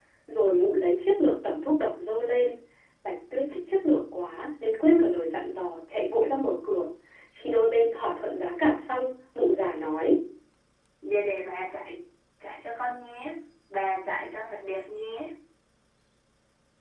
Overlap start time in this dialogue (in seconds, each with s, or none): none